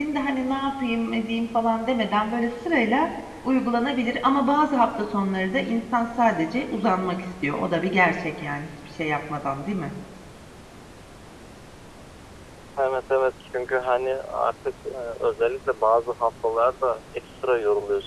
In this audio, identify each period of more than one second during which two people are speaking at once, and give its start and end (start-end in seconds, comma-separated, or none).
none